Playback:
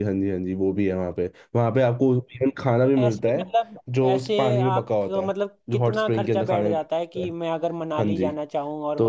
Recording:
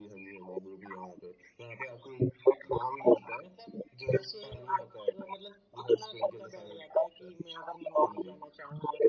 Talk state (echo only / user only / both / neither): echo only